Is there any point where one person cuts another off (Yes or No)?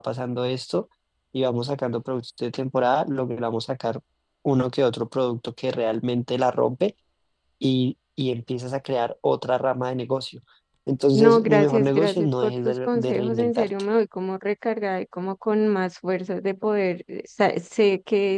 Yes